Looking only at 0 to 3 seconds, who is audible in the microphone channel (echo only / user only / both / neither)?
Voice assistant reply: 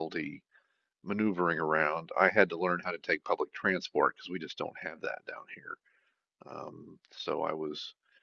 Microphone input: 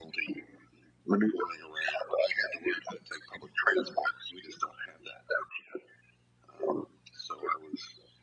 echo only